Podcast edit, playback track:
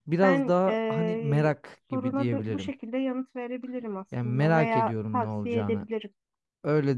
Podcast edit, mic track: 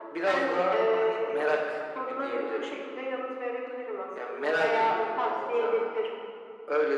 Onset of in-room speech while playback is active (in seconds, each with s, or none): none